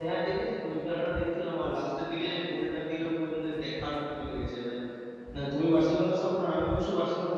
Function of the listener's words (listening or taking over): listening